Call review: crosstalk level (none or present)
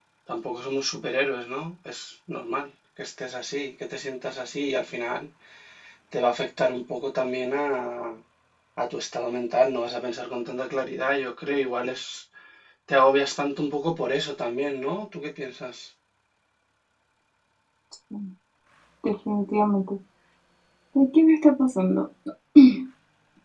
none